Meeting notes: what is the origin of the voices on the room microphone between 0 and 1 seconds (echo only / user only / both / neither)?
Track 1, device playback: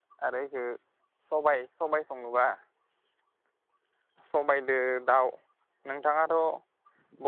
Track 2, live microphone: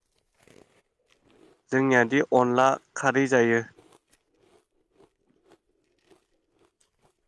neither